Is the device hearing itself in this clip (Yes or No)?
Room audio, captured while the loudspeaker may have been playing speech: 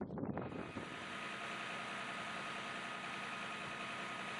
No